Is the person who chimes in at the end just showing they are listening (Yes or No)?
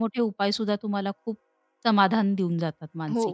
No